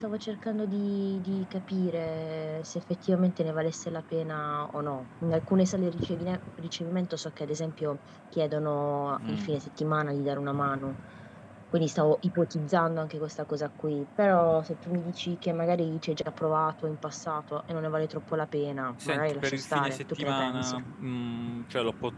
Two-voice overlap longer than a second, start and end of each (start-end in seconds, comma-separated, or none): 19.1-20.8